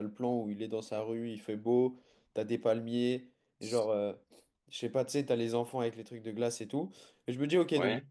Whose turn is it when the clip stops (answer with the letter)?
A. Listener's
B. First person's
B